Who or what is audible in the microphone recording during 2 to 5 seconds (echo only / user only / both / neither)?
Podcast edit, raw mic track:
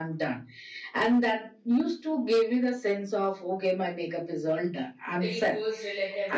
echo only